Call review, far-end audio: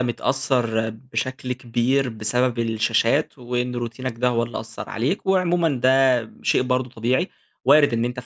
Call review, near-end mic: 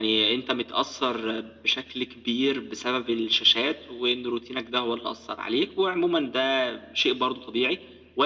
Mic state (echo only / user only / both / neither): echo only